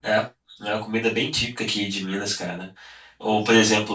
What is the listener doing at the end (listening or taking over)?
listening